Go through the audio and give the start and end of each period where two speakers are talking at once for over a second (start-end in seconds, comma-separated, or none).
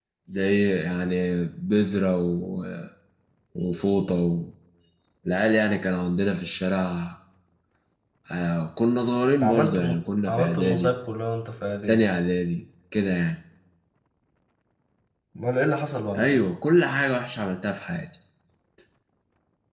9.4-10.9